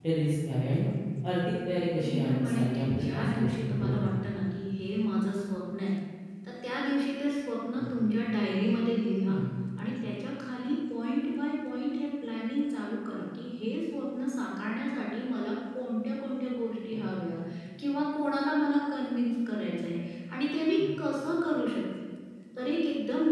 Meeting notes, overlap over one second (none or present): present